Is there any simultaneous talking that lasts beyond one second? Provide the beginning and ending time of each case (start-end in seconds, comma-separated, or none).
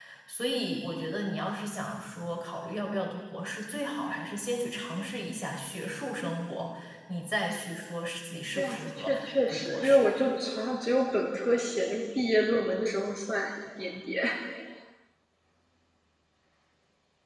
8.5-10.0